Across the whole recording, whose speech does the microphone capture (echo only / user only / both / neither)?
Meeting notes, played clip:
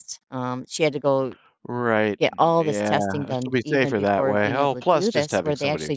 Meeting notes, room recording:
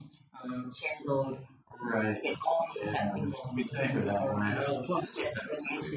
echo only